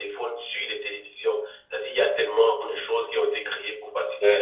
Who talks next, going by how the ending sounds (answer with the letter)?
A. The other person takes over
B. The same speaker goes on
A